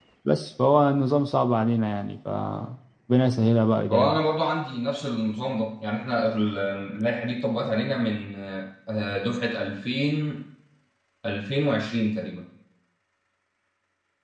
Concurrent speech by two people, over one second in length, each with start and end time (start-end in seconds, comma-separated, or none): none